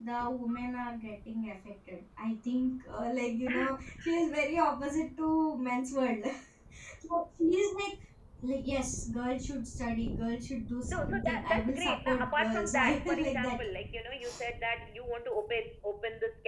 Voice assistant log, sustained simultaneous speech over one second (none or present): present